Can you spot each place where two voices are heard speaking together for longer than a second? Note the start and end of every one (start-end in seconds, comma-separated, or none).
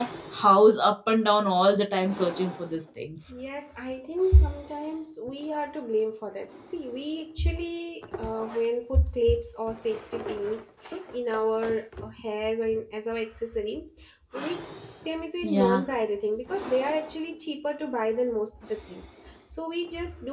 none